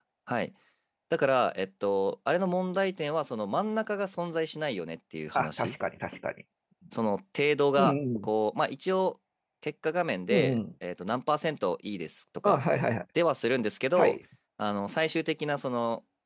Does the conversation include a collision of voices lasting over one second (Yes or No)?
No